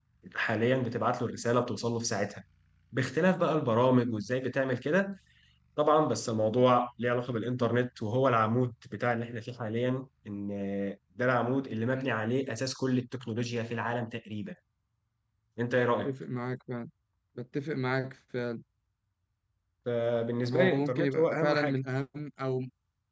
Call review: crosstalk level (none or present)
present